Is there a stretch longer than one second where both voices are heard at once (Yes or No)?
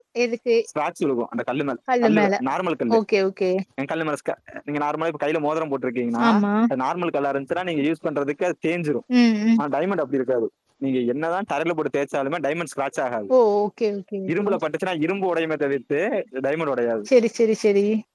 No